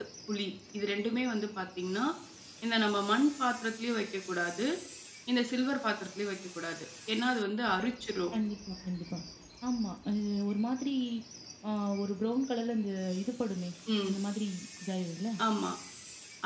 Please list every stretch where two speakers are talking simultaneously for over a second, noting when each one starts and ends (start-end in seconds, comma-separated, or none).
none